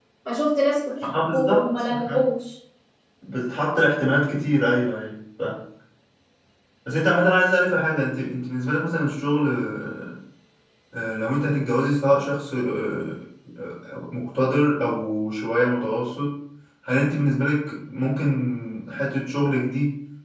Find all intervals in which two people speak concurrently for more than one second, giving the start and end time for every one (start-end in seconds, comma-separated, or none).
1.0-2.2